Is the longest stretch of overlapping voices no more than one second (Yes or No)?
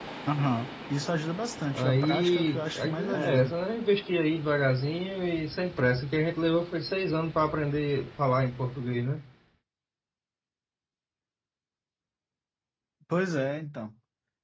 No